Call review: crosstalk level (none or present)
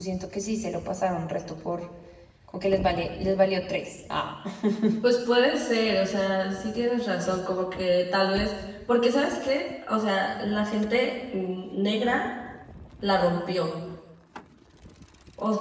none